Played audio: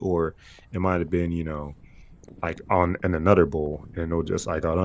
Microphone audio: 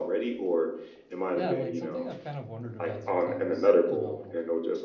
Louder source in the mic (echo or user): echo